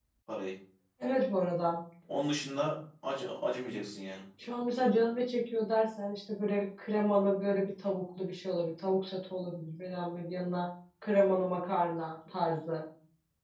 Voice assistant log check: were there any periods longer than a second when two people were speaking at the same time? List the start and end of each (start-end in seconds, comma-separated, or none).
none